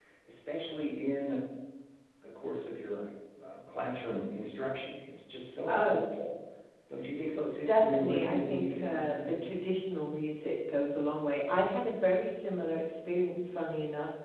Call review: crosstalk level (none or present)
present